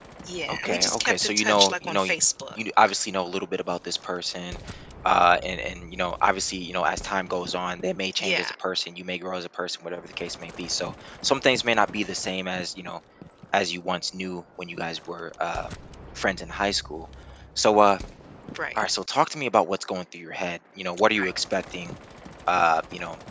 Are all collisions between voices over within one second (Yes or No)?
No